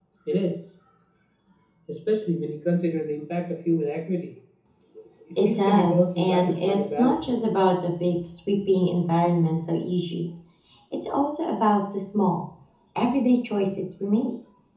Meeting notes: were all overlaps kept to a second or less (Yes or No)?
No